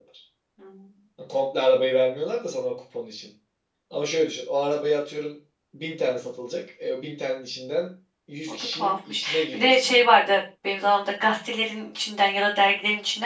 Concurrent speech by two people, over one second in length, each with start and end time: 8.7-10.1

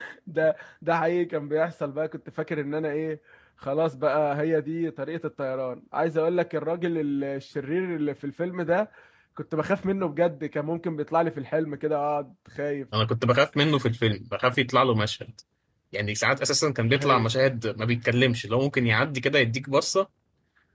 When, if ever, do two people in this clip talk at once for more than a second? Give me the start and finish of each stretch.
none

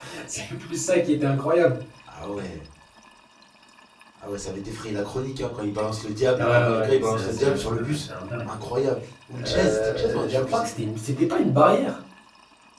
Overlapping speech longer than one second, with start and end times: 6.4-8.0, 9.4-10.7

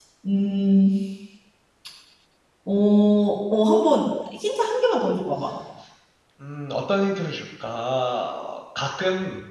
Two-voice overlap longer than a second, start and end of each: none

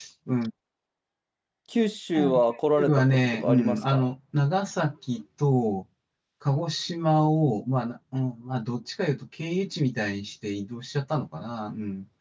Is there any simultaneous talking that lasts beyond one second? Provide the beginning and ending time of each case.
2.8-4.0

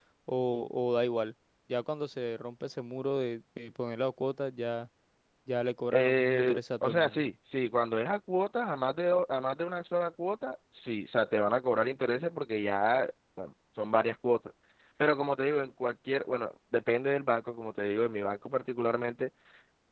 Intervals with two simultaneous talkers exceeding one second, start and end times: 5.9-7.2

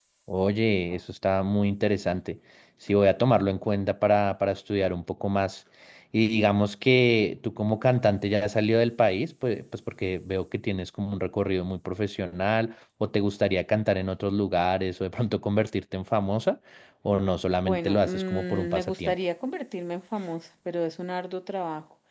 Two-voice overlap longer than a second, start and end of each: 17.6-19.1

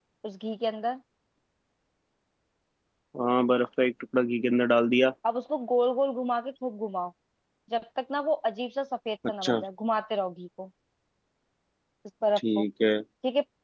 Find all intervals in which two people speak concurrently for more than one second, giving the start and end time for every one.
none

